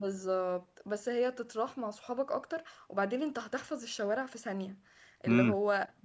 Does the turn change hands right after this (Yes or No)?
No